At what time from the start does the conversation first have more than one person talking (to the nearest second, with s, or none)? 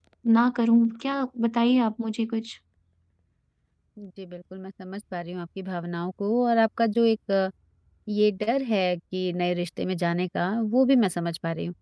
none